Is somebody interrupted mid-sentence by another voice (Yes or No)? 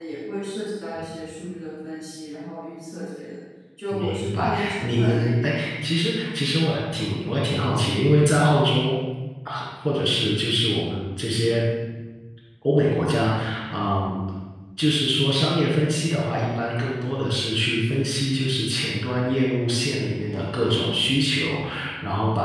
Yes